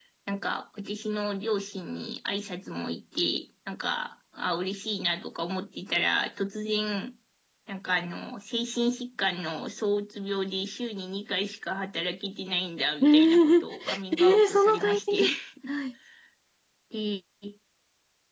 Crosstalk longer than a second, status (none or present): present